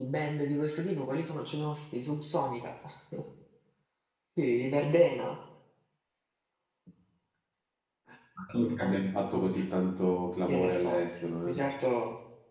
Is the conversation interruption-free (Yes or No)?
No